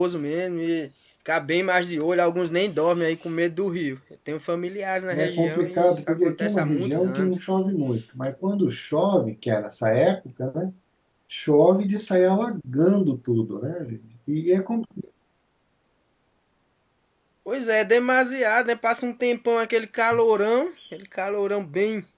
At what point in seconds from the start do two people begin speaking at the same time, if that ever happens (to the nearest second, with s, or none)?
5 s